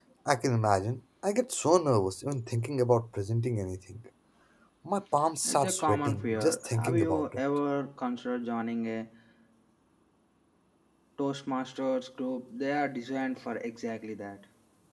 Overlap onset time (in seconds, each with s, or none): 5.5 s